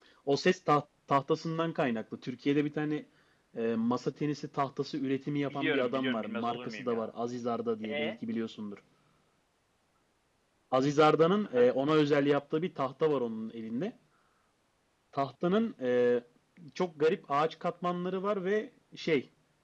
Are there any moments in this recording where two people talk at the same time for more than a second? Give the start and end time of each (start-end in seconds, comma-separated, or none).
5.4-7.1